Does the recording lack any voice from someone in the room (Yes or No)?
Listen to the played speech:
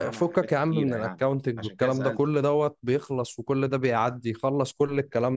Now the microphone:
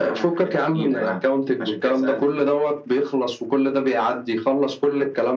Yes